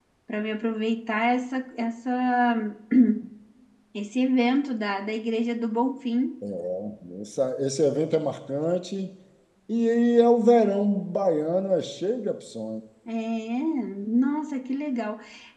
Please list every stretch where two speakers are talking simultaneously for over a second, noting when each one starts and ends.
none

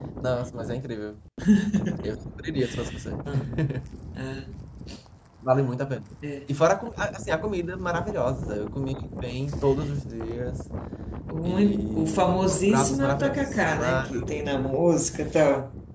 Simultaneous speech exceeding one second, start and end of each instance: 11.4-14.1

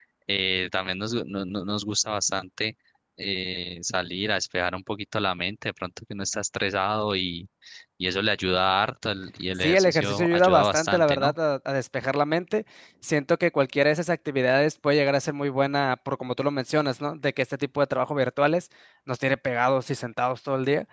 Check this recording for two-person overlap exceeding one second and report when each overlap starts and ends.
9.6-11.3

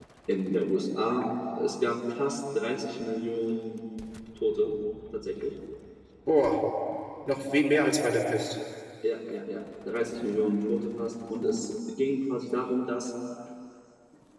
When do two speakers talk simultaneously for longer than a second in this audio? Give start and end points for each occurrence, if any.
none

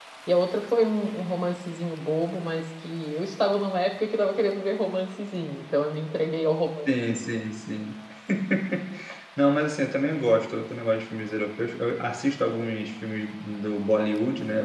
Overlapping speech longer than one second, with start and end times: none

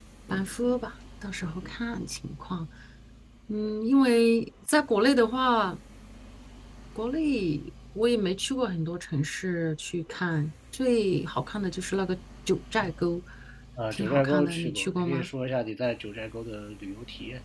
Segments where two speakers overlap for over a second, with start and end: 13.9-15.3

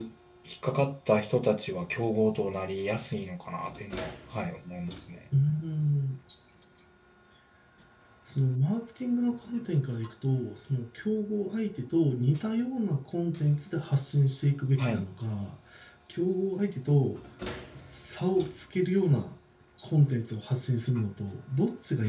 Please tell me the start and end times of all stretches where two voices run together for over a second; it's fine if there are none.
none

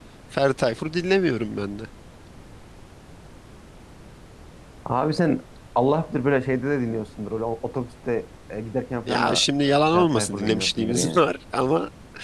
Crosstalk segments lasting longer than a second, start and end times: 9.1-11.2

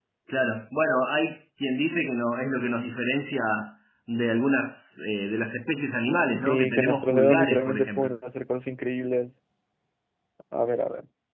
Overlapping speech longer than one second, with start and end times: 6.4-8.1

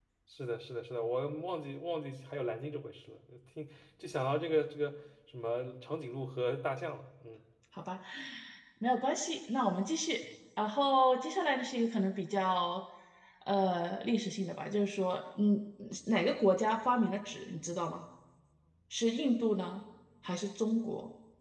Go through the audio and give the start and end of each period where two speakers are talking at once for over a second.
none

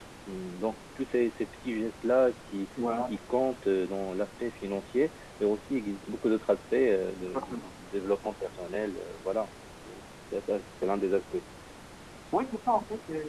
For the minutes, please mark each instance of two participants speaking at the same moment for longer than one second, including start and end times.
none

